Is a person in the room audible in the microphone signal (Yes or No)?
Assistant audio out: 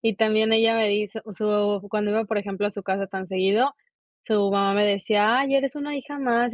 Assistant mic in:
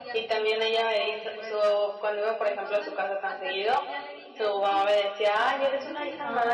Yes